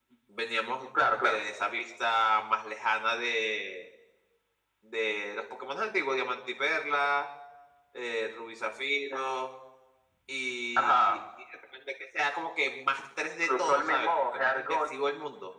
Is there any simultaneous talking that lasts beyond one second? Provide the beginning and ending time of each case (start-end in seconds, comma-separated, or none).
13.4-14.7